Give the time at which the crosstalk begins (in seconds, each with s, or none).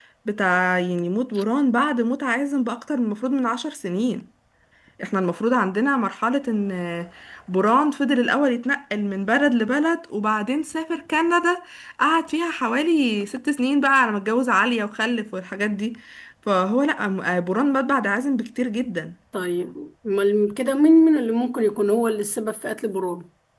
none